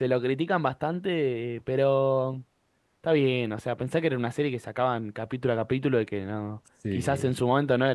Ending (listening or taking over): listening